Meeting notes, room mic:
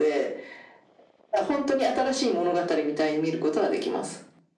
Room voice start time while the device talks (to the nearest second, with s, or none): none